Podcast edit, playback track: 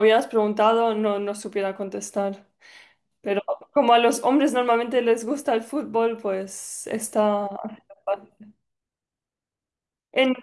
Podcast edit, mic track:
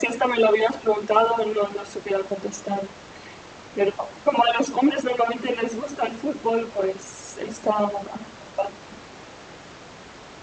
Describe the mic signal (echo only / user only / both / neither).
echo only